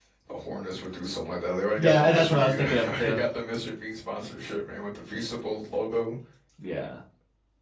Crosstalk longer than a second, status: present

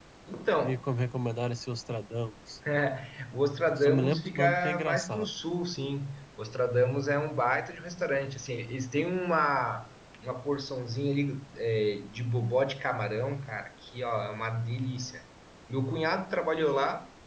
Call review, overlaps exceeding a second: present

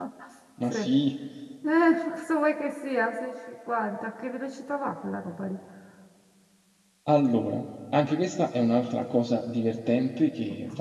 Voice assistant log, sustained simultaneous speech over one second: none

